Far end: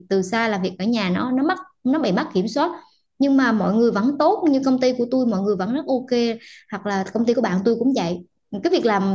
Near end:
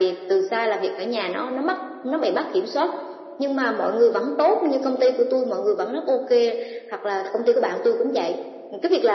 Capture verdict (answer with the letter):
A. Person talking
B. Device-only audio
B